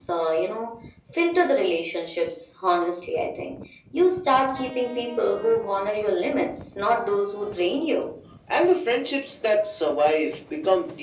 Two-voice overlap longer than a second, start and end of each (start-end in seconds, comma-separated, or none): none